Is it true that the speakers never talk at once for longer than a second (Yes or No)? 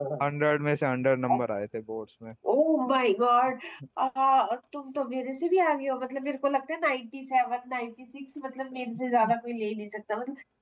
Yes